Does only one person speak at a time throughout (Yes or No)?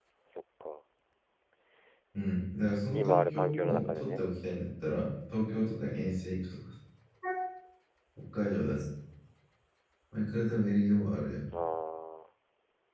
No